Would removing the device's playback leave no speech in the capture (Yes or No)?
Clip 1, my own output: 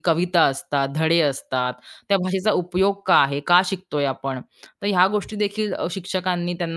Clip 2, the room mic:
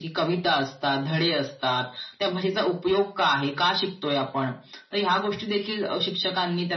Yes